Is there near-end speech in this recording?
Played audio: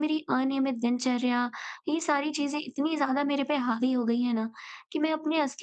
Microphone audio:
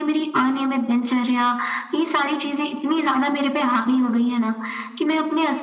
No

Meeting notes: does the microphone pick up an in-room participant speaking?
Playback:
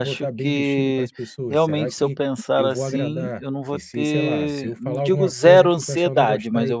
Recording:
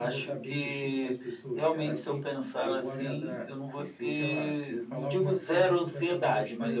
No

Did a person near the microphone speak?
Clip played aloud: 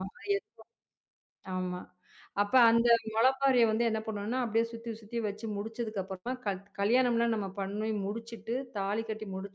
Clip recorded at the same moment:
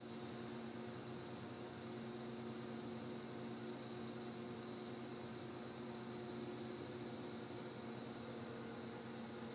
No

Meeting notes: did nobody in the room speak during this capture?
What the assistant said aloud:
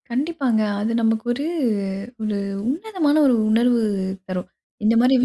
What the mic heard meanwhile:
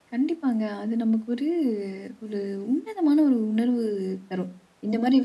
Yes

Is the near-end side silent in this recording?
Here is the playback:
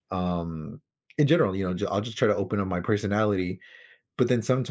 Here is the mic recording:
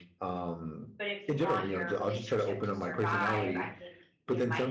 No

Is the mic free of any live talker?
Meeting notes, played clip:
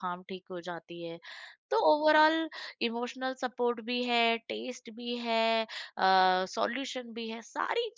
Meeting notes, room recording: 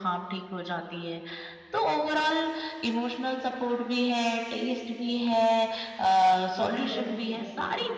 No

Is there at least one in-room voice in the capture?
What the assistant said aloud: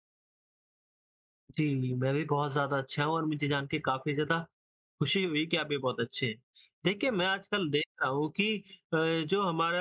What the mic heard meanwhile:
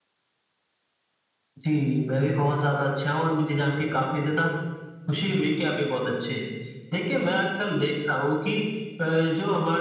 No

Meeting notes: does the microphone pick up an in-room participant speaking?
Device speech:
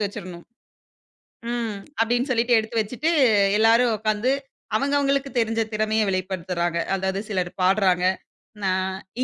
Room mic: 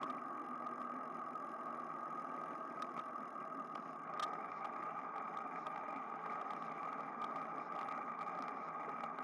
No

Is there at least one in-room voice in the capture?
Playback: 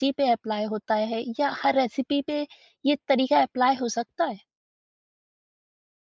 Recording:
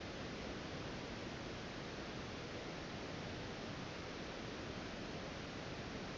No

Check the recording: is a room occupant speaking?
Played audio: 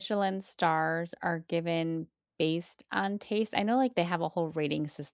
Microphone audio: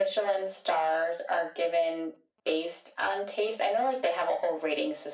No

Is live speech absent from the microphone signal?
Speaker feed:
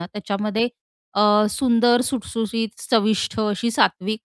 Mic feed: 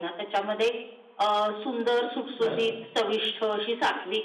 No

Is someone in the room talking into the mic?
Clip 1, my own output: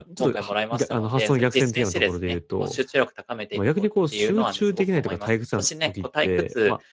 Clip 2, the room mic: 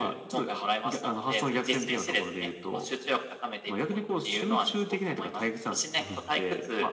Yes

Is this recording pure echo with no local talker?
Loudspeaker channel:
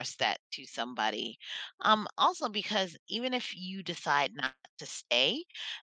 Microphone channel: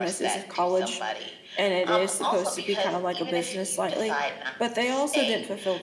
No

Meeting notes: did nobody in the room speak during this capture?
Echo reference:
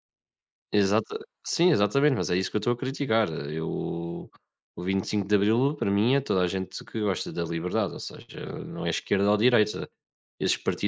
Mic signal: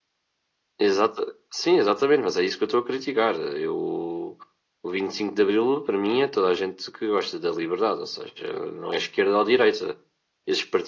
Yes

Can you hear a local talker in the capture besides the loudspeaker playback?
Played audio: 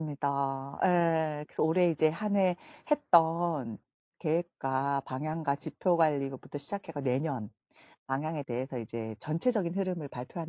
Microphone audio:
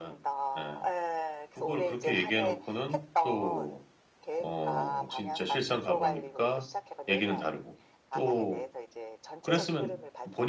Yes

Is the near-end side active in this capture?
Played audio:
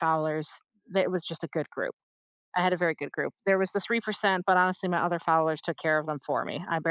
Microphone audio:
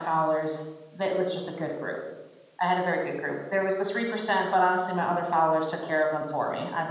No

